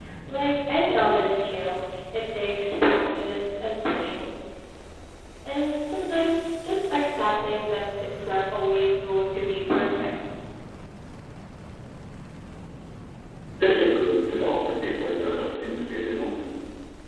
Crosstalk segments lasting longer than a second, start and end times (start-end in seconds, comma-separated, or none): none